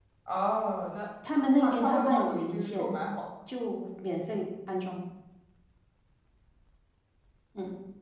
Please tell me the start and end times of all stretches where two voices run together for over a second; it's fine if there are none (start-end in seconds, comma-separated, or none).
1.6-2.9